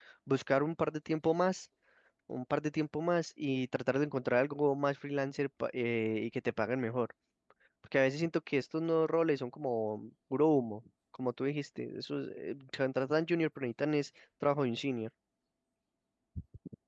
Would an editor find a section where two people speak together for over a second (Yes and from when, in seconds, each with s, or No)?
No